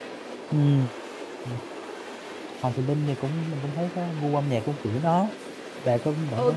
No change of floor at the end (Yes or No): No